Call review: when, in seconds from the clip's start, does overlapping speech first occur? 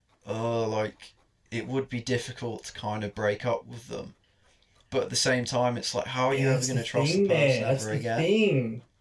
6.3 s

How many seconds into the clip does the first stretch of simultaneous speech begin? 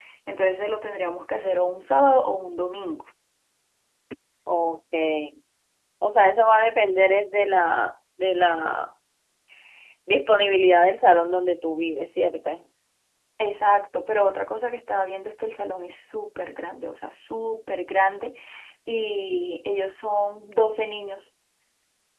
none

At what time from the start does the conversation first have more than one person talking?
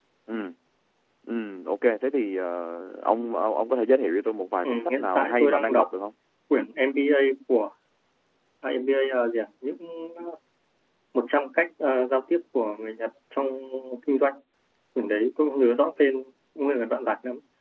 4.6 s

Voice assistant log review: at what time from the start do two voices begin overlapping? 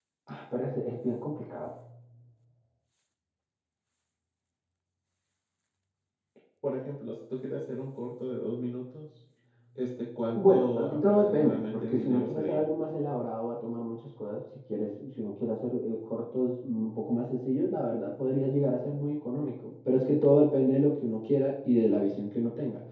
10.4 s

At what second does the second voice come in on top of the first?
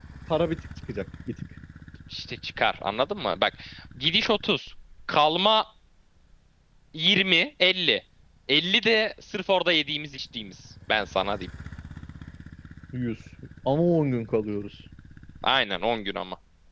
none

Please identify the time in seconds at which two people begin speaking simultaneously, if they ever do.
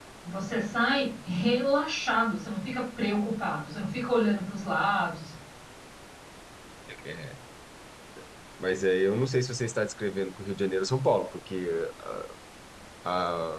none

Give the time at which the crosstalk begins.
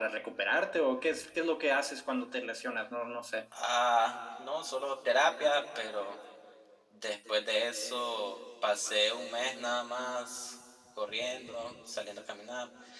none

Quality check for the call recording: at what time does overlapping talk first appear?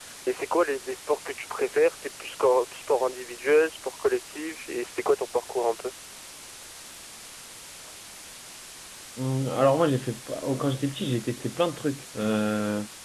none

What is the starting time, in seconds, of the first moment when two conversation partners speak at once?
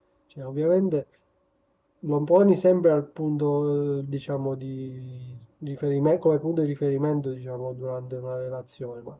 none

